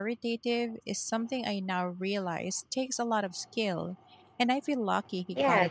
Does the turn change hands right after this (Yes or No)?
Yes